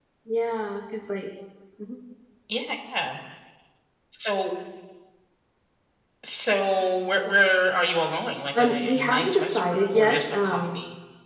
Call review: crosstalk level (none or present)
present